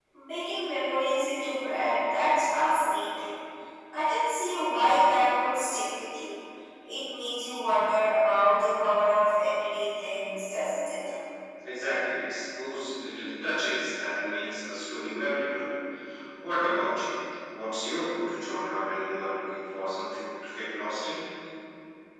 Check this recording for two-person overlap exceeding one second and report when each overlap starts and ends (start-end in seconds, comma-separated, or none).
none